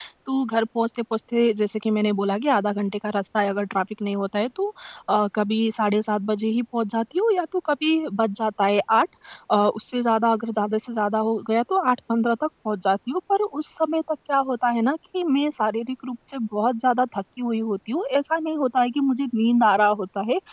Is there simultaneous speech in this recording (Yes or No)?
No